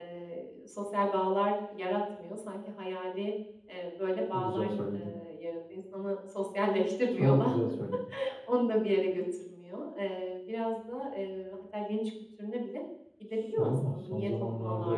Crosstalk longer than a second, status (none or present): present